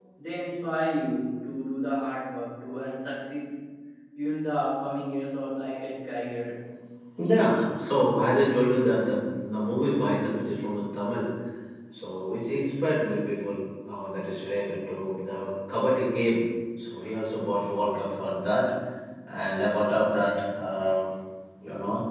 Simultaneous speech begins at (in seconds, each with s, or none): none